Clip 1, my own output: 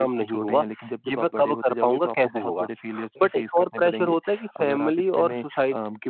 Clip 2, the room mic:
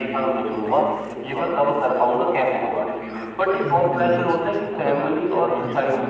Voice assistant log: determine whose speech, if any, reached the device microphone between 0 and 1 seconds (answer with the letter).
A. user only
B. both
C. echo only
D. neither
C